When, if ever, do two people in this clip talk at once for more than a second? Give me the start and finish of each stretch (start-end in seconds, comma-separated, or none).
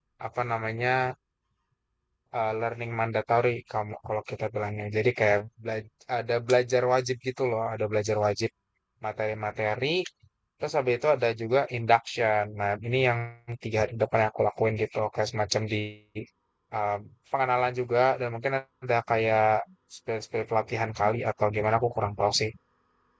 none